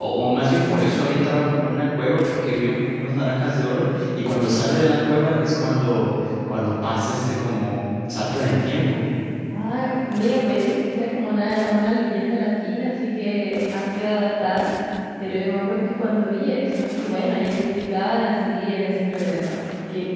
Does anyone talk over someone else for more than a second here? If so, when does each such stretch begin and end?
none

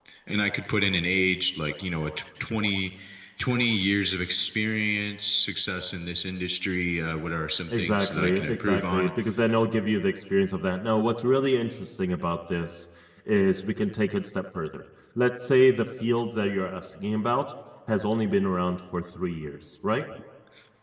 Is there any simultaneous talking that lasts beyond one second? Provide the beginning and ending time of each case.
7.7-9.1

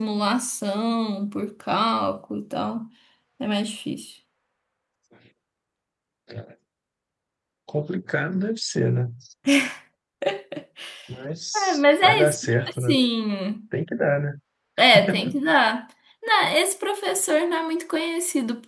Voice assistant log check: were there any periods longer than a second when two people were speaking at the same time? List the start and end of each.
11.5-12.9

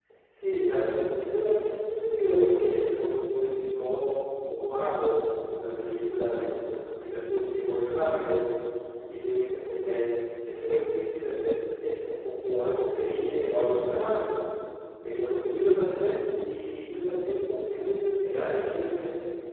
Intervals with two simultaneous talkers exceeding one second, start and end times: none

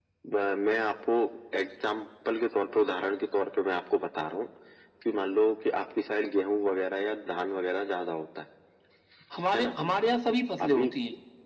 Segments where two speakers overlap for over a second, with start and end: none

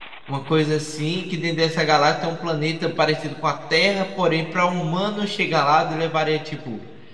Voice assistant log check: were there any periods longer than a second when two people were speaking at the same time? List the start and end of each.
none

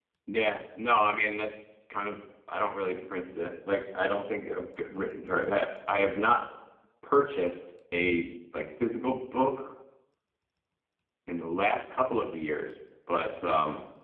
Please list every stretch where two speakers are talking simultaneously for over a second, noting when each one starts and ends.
none

